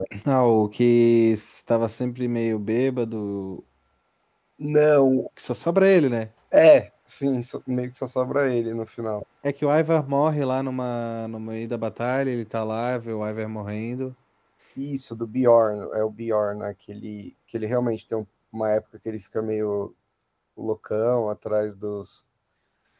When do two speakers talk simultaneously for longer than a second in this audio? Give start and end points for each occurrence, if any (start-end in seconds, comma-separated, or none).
none